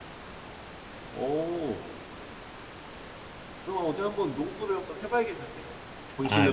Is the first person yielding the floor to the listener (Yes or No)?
Yes